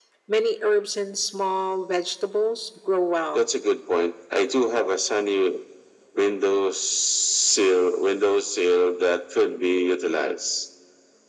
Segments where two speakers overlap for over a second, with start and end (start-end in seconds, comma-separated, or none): none